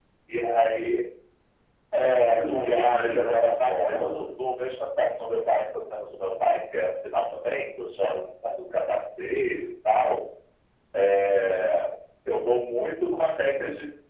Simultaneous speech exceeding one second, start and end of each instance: 2.4-4.3

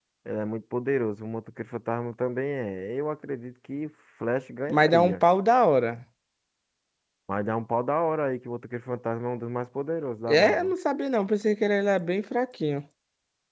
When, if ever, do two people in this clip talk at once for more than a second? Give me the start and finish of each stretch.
none

